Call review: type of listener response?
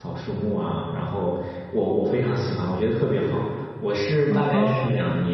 listening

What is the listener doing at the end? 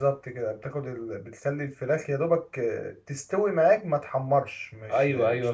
taking over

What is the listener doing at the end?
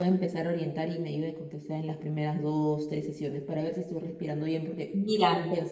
listening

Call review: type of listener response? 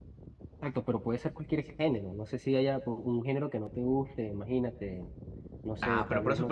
taking over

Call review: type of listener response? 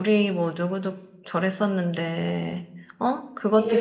taking over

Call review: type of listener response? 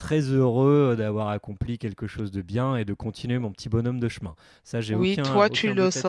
taking over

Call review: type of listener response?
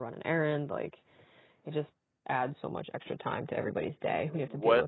taking over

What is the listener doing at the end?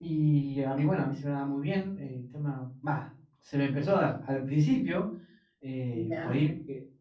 listening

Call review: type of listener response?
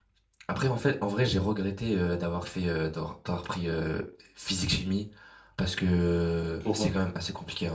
listening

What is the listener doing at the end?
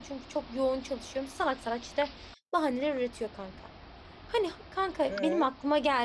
listening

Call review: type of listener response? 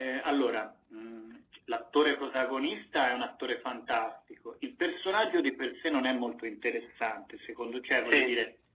listening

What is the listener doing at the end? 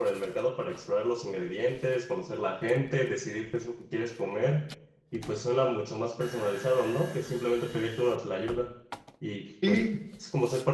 listening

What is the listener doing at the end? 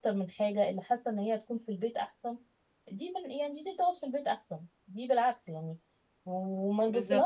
listening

